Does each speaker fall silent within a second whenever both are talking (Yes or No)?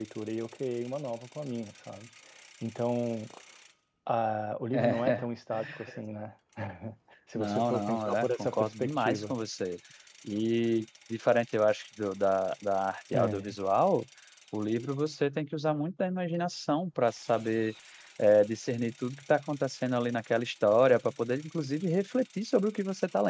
No